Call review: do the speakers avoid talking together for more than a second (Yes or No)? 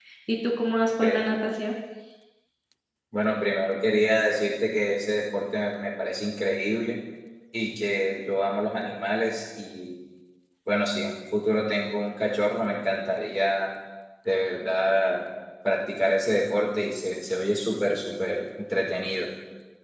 Yes